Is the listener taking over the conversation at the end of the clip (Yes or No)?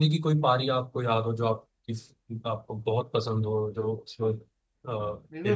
Yes